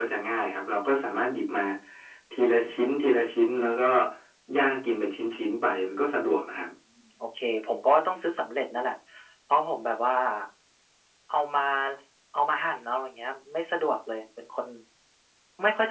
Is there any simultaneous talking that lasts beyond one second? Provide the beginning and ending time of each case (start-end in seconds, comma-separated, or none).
none